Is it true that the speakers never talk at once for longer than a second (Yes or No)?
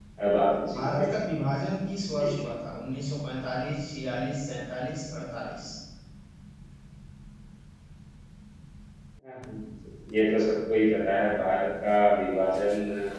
Yes